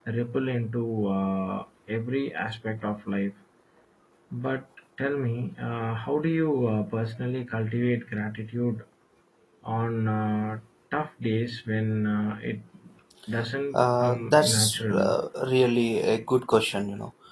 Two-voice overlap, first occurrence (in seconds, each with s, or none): 13.7 s